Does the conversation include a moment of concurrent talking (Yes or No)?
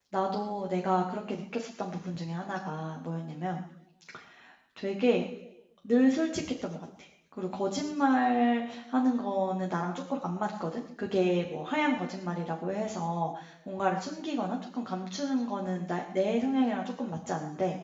No